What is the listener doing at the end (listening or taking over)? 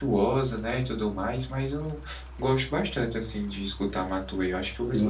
taking over